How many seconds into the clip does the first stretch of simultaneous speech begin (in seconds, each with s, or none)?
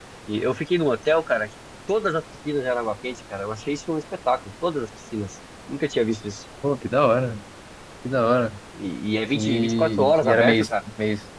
9.3 s